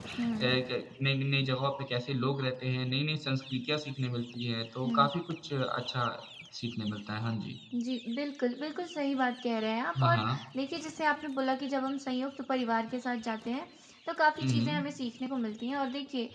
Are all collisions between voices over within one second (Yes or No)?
Yes